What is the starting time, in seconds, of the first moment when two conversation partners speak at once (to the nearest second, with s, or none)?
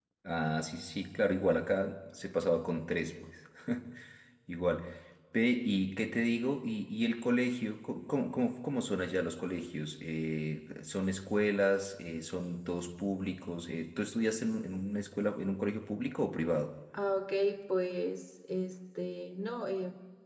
none